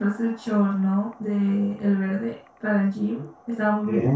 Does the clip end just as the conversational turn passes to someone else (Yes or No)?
Yes